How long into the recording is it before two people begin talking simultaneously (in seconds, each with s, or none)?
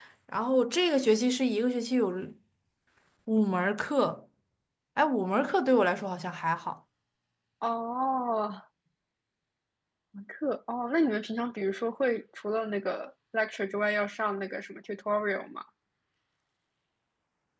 none